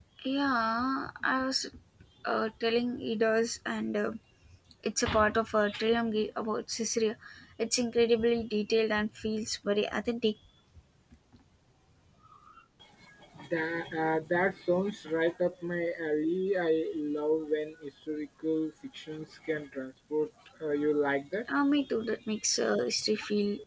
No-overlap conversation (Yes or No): Yes